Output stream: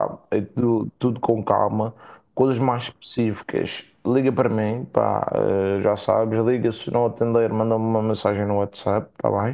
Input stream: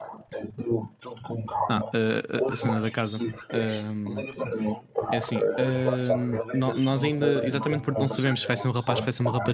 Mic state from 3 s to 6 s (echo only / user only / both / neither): both